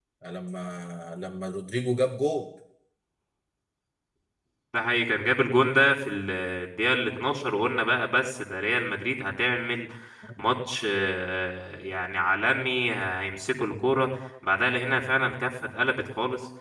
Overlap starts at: none

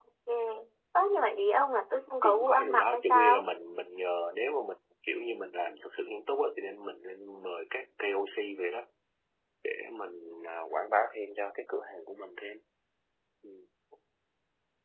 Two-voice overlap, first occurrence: 2.2 s

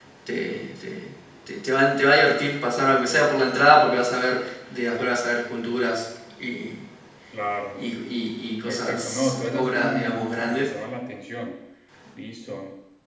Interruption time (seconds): 8.7 s

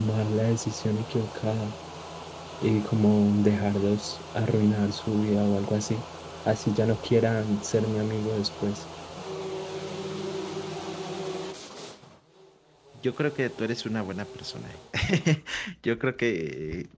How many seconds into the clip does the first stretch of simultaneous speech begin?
none

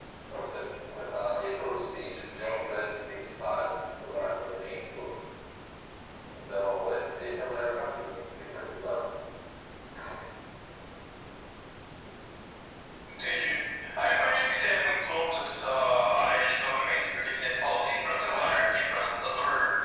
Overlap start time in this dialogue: none

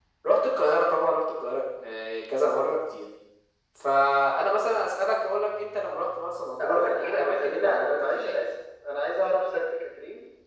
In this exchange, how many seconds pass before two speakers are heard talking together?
6.6 s

